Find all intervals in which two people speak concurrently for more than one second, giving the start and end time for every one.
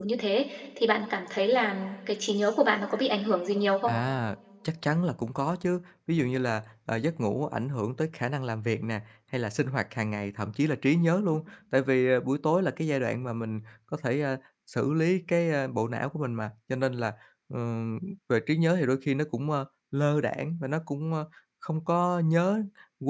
none

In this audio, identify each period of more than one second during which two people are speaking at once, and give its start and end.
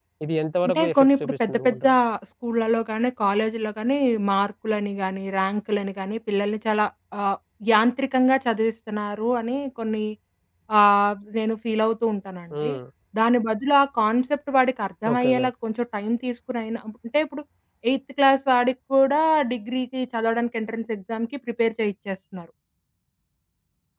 0.6-1.9

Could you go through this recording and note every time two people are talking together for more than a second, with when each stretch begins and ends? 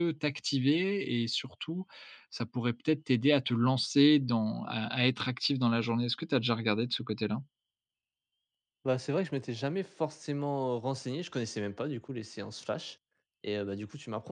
none

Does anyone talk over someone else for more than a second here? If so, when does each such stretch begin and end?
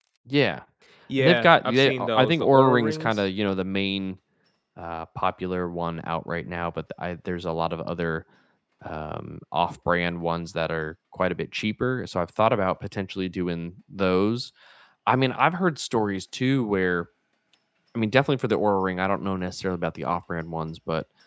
1.2-3.3

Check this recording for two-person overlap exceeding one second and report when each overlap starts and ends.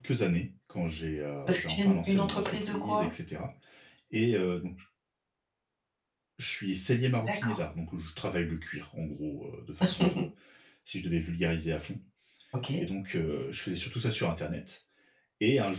1.5-3.1

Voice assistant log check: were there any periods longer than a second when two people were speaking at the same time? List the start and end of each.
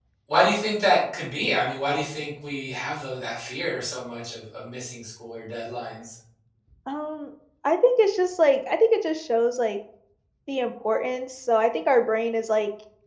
none

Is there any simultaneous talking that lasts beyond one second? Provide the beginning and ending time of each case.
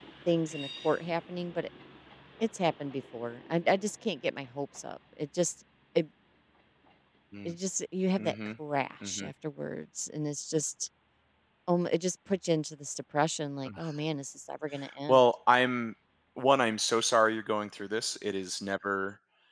none

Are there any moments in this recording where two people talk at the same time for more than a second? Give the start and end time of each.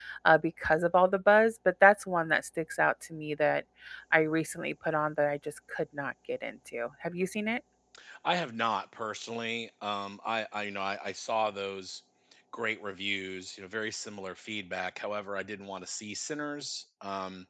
none

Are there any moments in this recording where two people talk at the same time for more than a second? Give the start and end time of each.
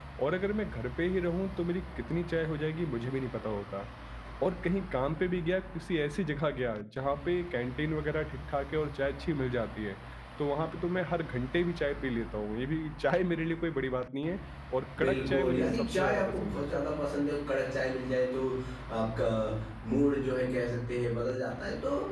15.0-16.6

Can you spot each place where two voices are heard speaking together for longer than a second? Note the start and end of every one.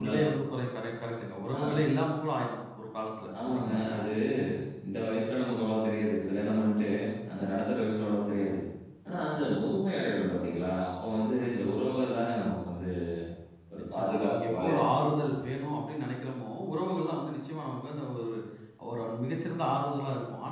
13.8-15.3

